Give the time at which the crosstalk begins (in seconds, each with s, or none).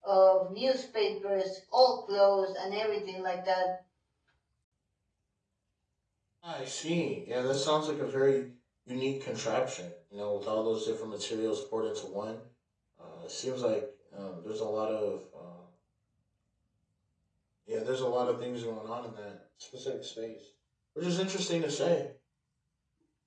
none